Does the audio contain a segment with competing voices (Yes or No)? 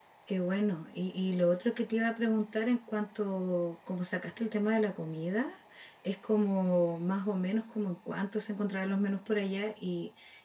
No